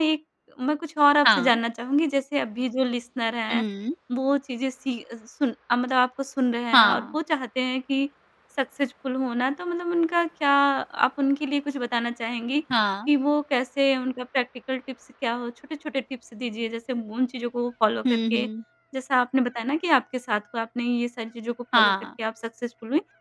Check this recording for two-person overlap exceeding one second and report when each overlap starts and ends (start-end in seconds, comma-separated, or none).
none